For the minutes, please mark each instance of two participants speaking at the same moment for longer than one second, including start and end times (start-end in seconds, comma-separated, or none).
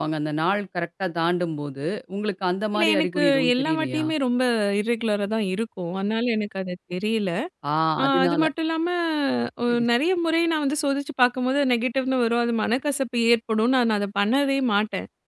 2.8-4.0